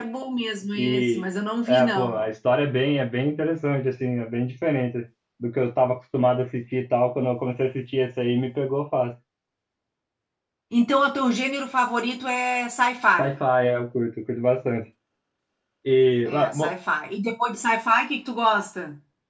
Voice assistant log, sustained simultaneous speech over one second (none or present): none